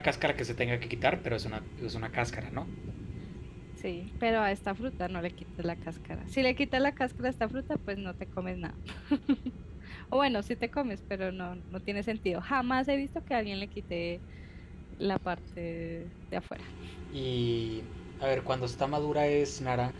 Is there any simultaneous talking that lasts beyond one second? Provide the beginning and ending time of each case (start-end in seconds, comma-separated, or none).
none